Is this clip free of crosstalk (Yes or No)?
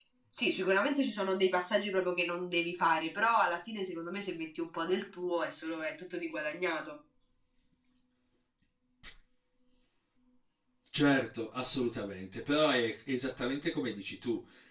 Yes